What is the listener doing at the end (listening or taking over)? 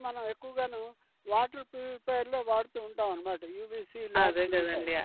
taking over